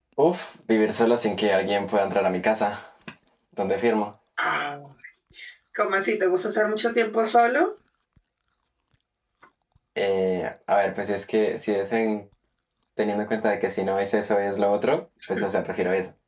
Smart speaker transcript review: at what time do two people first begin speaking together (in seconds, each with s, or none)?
none